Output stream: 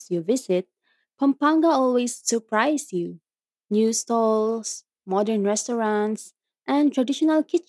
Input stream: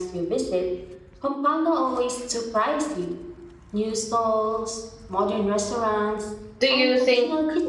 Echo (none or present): present